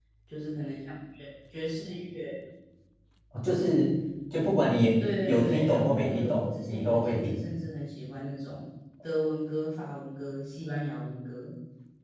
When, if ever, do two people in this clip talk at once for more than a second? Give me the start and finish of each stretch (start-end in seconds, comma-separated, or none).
5.0-7.4